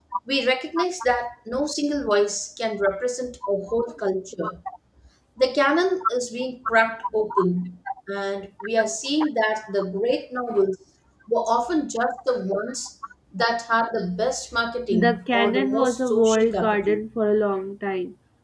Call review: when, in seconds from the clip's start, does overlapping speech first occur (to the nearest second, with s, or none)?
15 s